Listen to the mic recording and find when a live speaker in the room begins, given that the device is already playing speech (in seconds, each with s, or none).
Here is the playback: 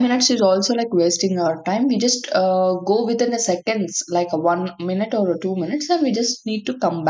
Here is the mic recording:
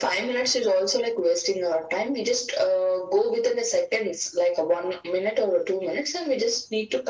none